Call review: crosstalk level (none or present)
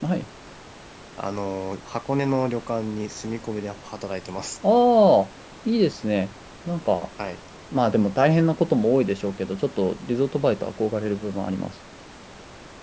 none